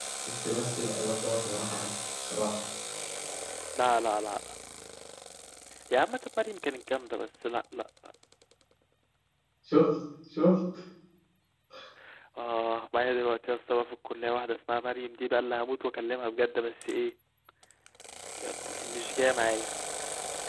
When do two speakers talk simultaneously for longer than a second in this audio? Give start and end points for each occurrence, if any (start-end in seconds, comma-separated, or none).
none